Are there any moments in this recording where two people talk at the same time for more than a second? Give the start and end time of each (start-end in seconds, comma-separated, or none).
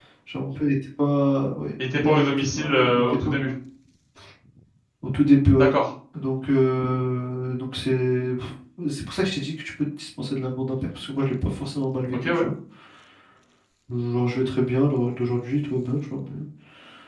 2.0-3.3